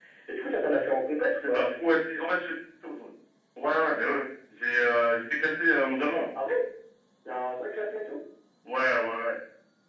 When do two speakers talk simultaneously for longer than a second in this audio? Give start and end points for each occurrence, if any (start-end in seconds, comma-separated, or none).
none